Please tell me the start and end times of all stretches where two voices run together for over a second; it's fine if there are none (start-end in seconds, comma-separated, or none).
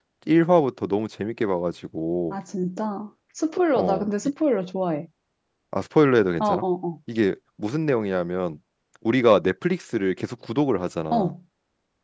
none